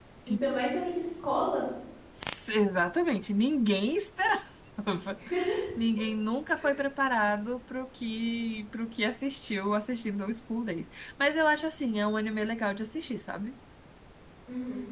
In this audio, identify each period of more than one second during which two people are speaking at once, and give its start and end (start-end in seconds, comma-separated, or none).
none